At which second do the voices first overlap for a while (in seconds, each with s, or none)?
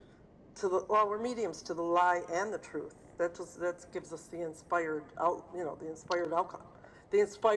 none